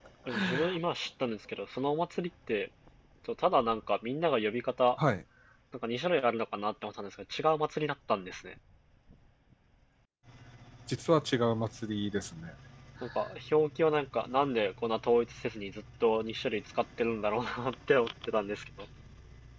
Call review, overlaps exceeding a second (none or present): none